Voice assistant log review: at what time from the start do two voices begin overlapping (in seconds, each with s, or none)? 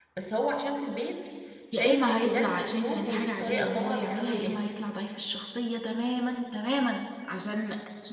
1.7 s